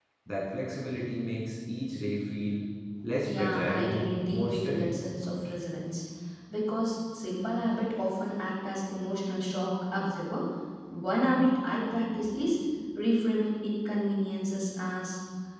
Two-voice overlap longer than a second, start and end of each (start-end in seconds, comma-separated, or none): 3.2-4.9